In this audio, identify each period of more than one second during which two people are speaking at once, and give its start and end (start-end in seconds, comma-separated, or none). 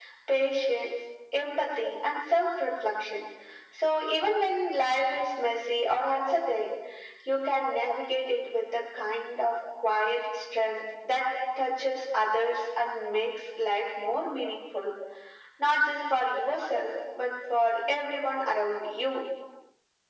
none